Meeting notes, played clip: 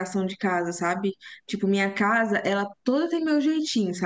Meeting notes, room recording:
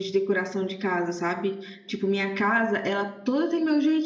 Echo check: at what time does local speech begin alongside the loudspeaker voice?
none

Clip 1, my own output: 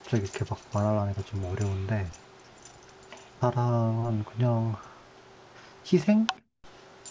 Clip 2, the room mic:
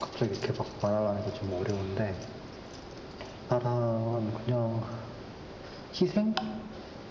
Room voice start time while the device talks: none

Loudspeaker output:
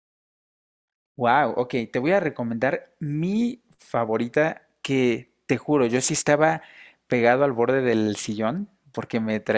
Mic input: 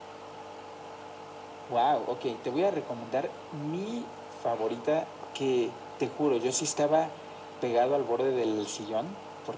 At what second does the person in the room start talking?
none

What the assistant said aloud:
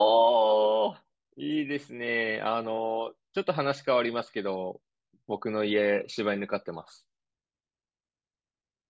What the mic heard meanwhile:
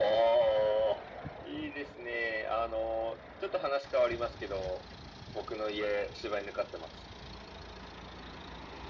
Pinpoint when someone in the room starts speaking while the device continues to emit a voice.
none

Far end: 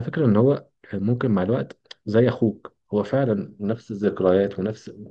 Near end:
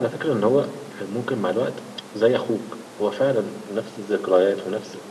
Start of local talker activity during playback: none

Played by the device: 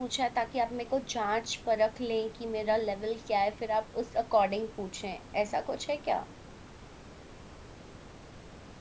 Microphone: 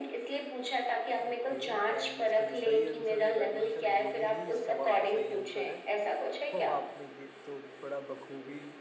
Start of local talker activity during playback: 1.2 s

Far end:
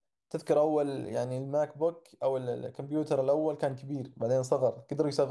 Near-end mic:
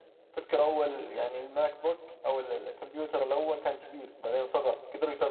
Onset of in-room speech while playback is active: none

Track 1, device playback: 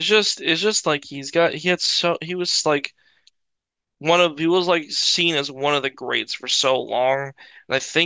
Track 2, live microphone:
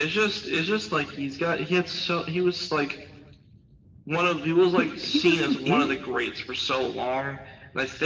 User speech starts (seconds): 4.7 s

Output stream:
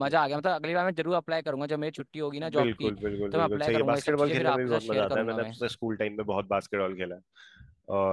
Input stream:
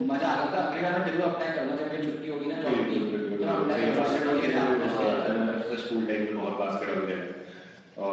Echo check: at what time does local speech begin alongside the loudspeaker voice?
3.8 s

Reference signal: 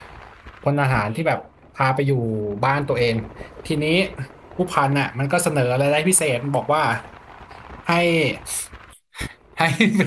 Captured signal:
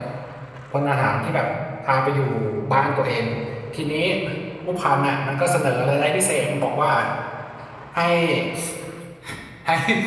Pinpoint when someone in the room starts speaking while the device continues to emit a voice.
none

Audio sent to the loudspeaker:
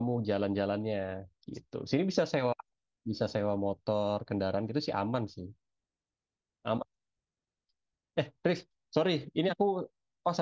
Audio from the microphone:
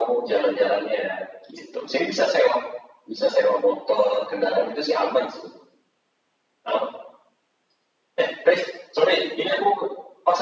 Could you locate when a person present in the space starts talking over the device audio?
none

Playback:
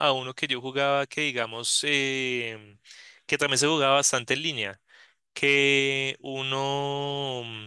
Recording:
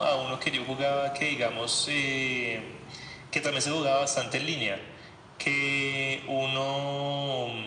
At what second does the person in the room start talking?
none

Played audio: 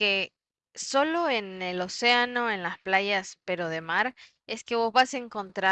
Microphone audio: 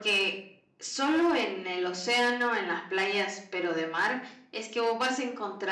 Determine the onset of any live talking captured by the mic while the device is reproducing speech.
none

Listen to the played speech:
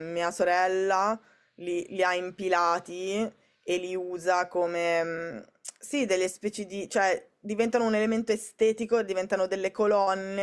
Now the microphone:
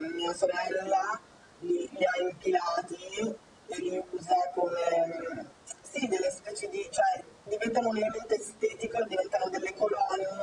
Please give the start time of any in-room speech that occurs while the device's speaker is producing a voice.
none

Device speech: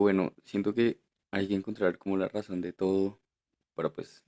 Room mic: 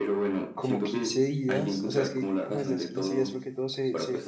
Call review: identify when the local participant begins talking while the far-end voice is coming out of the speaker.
0.5 s

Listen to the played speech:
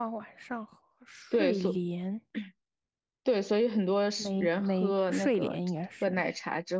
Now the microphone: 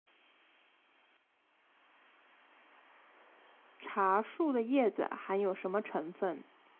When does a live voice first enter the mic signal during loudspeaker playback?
3.8 s

